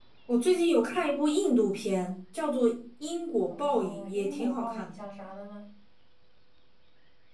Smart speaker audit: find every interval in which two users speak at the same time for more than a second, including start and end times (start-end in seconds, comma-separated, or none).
3.5-5.0